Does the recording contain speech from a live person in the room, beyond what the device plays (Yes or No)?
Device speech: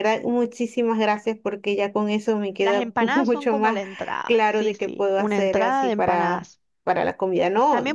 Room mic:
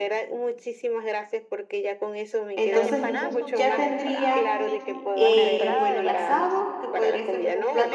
Yes